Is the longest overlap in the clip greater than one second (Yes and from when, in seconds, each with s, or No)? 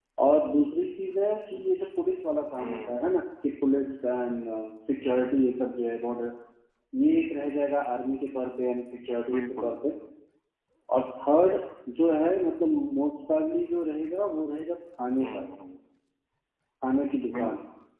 No